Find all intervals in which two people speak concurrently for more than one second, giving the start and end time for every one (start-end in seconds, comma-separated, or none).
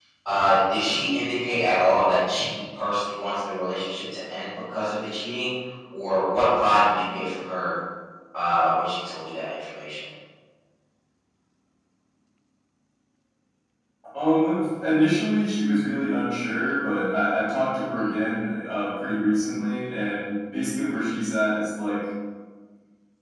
none